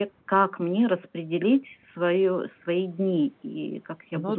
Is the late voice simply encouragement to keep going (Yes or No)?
No